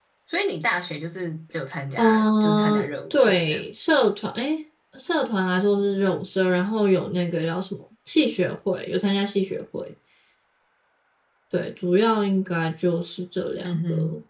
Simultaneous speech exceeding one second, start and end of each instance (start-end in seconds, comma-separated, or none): 2.0-3.7